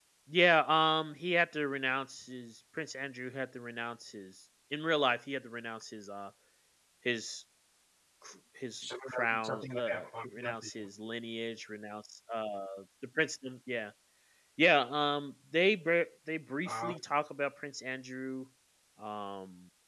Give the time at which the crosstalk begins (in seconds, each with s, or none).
8.8 s